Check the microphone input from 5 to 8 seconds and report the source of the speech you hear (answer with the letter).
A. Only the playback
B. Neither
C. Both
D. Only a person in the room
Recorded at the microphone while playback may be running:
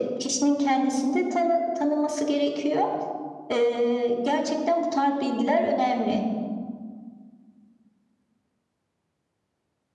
A